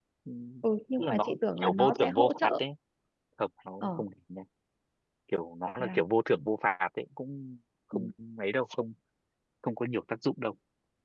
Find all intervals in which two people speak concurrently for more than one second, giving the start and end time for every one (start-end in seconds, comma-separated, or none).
1.0-2.5